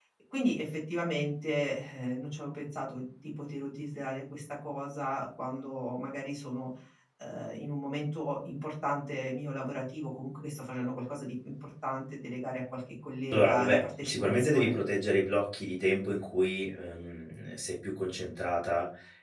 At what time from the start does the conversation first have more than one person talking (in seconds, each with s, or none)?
13.3 s